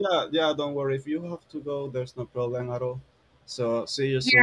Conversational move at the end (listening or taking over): taking over